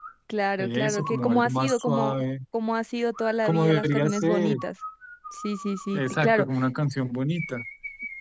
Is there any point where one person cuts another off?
Yes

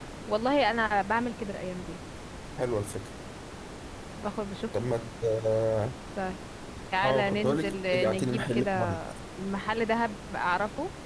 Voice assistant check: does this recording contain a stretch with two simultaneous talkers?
Yes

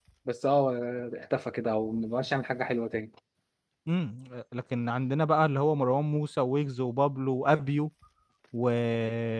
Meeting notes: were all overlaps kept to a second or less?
Yes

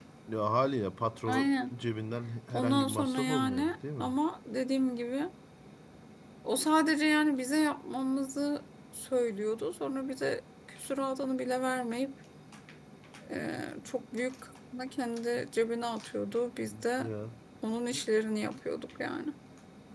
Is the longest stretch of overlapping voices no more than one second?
No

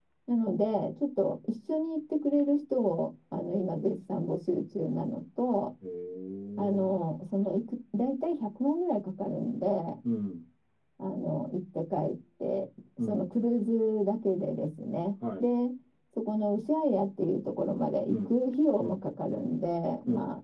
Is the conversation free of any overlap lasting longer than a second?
Yes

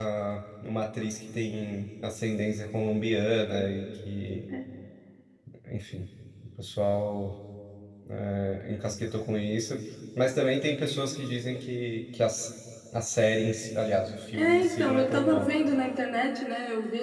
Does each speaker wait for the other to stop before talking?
No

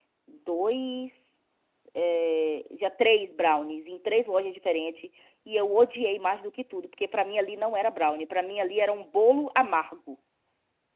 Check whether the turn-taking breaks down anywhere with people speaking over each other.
No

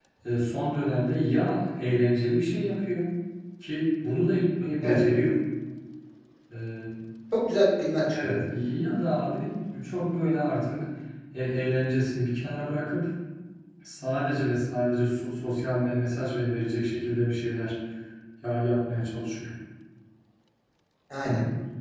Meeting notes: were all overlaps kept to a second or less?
Yes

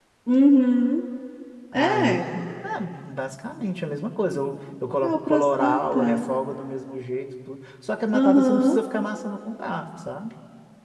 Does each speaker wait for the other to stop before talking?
No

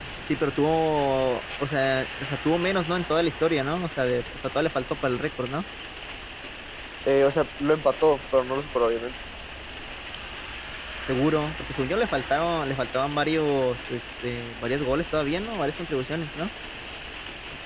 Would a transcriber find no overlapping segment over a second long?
Yes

